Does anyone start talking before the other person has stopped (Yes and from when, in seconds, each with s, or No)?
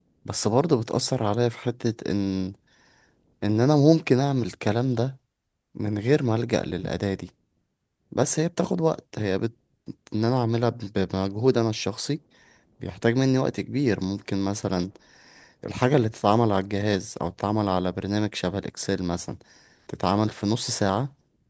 No